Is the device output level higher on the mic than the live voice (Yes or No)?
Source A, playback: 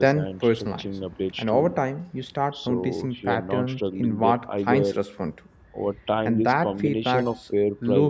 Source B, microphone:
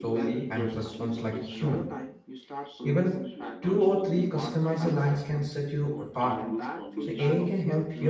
No